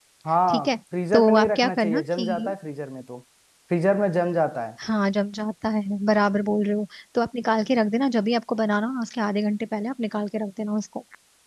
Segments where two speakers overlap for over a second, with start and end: 1.1-2.5

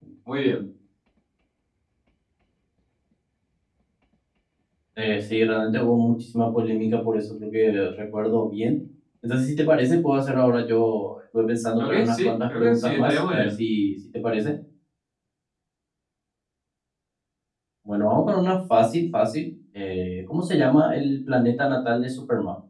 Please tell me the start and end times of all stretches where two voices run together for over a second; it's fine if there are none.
11.8-13.5

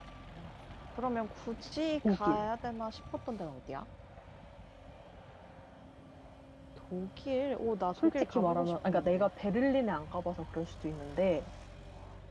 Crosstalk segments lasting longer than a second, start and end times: 8.0-9.3

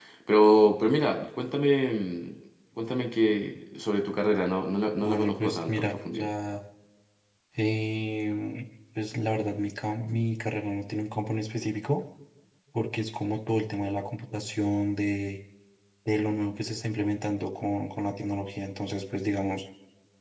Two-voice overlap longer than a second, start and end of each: 5.0-6.3

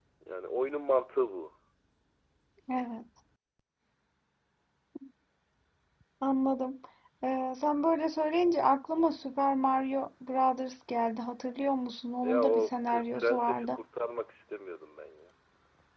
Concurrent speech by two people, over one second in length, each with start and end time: 12.2-13.8

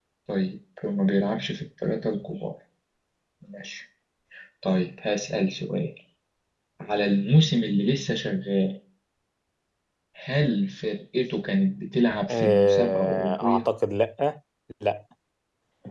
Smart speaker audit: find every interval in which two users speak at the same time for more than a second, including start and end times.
12.3-13.6

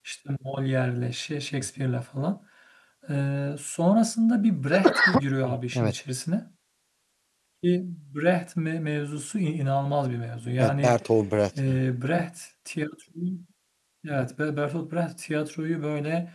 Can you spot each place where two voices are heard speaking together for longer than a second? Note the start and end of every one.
none

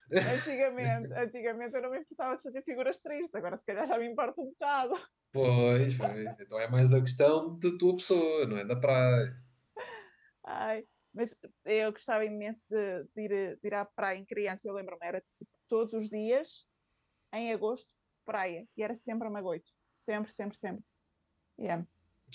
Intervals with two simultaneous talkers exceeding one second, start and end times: none

